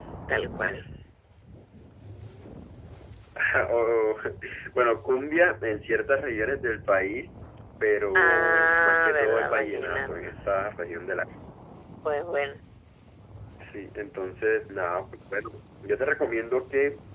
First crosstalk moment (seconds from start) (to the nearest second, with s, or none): 8 s